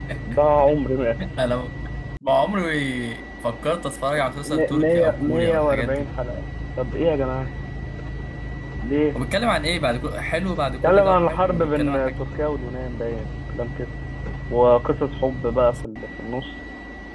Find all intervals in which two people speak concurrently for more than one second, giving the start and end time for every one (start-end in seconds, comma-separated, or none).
4.4-6.1, 10.8-12.2